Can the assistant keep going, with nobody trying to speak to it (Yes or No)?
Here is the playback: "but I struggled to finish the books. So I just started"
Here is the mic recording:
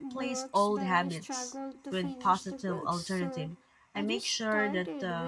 No